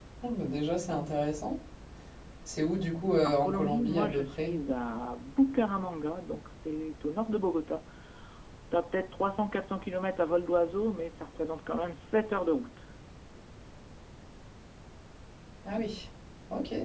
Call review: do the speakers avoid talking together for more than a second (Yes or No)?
No